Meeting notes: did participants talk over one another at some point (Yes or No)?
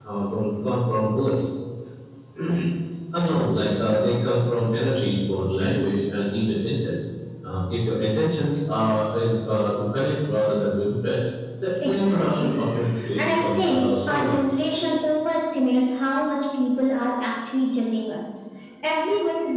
Yes